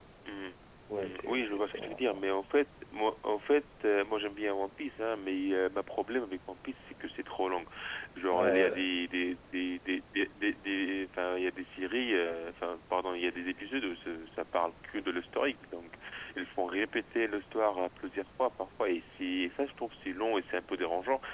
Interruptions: present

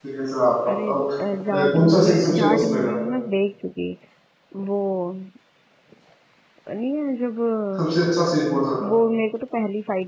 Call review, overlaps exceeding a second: present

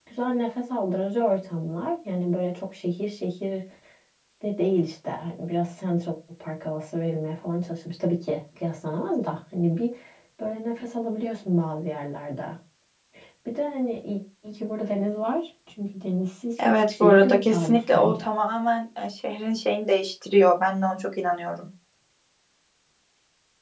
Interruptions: present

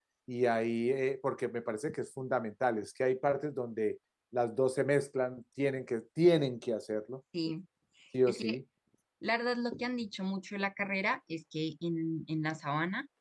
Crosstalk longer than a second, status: none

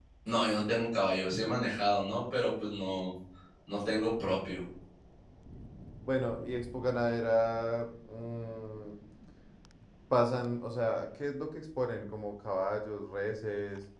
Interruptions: none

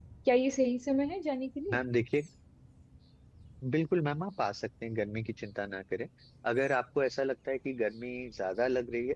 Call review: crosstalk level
none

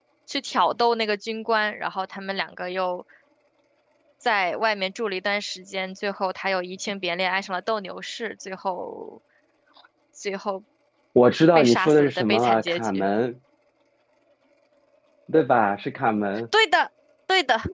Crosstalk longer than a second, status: present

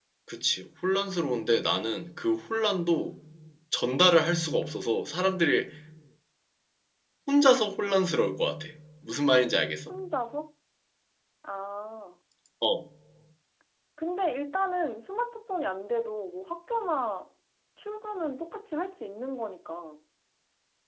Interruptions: none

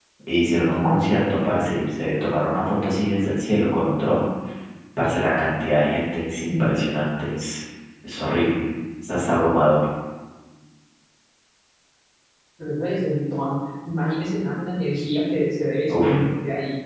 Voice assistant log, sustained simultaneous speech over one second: none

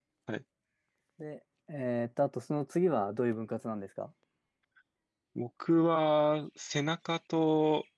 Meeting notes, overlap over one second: none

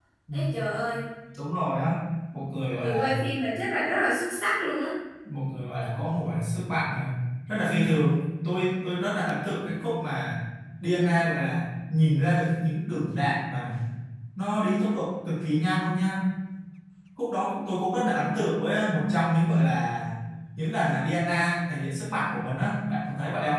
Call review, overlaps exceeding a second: none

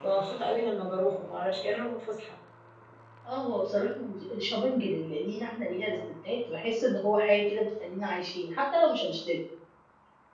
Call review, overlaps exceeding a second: none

